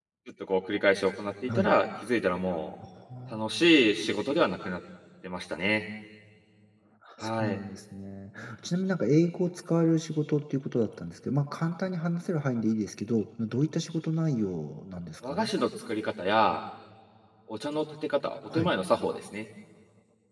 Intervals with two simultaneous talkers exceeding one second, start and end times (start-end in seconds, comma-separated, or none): none